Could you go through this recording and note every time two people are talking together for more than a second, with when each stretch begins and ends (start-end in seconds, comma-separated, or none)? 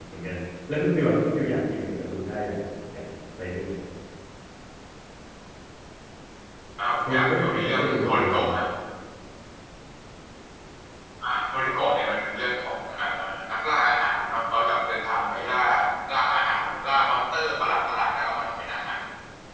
7.0-8.5